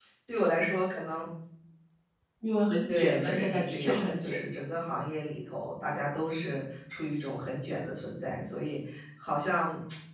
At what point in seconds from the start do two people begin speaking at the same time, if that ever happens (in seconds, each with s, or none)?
2.9 s